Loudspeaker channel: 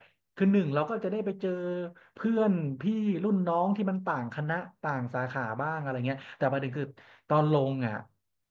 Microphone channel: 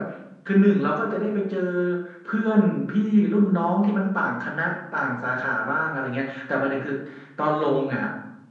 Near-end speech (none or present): none